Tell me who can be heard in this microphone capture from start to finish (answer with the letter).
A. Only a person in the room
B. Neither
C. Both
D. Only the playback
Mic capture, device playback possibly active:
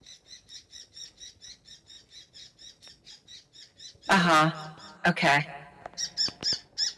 A